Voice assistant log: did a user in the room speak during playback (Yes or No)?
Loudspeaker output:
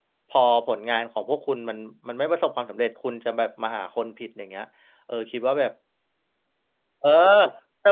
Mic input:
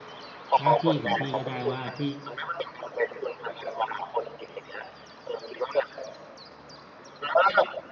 Yes